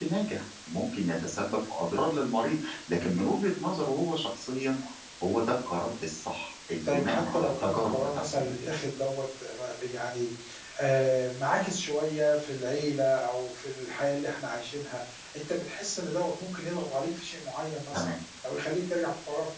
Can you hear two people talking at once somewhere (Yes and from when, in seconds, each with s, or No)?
Yes, from 6.8 s